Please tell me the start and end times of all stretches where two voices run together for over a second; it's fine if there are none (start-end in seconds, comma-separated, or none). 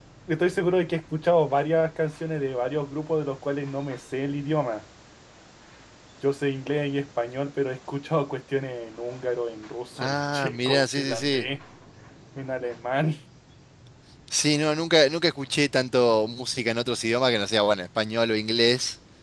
10.0-11.4